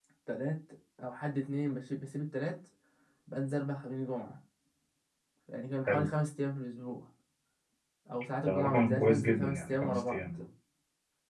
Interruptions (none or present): present